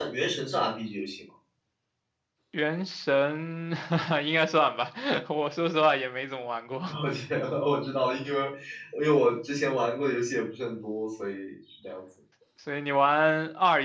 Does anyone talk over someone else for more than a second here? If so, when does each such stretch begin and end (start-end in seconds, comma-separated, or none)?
none